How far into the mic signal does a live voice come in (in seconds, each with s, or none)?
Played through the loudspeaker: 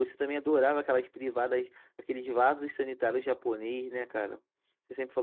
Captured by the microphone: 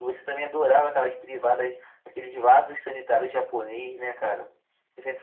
none